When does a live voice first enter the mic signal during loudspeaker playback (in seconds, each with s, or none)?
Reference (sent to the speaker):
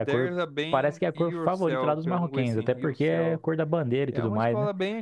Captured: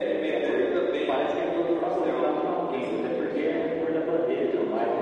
none